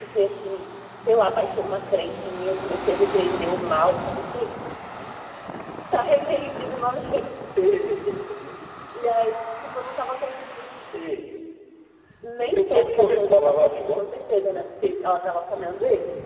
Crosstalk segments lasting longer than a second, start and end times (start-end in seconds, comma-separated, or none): 12.4-14.1